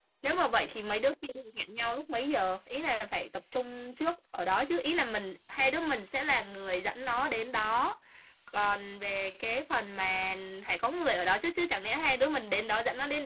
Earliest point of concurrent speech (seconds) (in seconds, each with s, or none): none